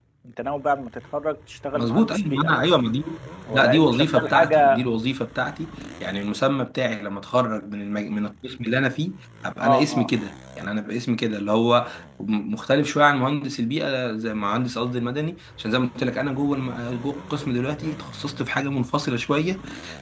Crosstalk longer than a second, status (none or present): present